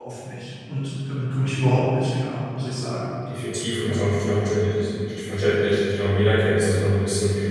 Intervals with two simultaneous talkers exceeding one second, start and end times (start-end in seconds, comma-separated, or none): none